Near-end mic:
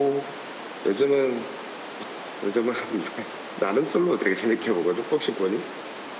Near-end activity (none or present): present